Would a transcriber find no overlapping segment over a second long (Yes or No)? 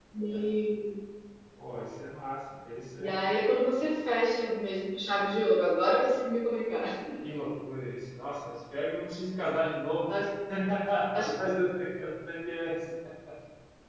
Yes